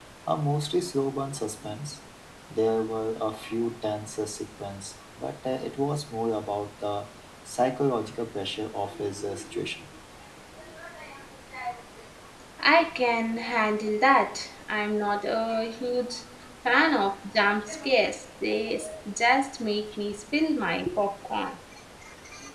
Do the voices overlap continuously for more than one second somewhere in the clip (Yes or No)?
No